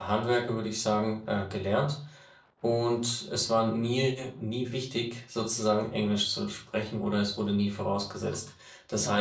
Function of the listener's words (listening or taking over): listening